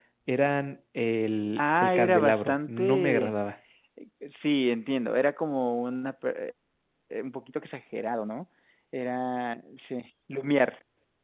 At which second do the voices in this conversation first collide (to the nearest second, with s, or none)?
2 s